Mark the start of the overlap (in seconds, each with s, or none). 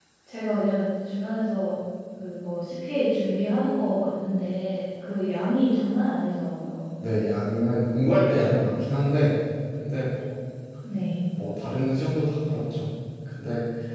none